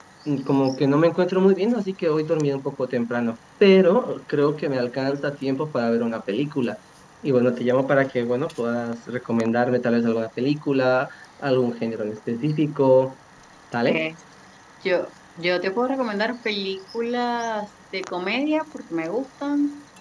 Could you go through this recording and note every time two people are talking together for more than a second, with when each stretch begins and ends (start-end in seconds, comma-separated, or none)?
none